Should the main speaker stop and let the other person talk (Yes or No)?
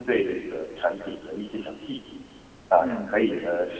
No